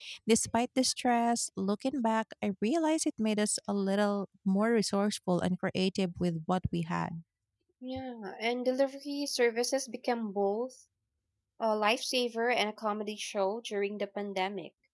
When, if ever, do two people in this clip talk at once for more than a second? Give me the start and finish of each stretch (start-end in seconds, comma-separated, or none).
none